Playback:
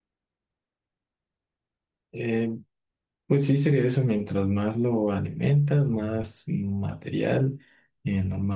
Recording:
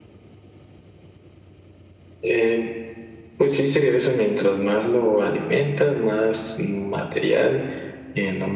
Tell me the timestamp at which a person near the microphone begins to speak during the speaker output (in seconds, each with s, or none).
none